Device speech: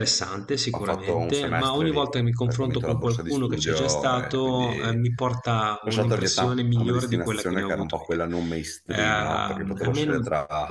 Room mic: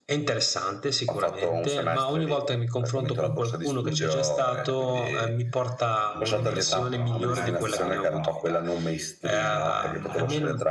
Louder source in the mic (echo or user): echo